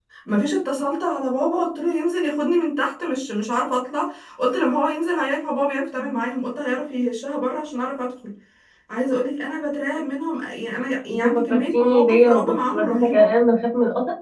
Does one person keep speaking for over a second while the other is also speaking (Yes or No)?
Yes